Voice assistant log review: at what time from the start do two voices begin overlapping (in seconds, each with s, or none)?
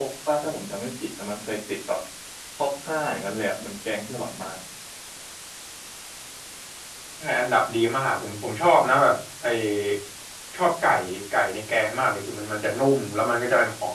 none